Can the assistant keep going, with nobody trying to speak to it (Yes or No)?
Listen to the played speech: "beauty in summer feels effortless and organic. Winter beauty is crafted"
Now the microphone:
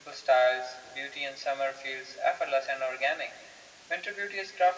Yes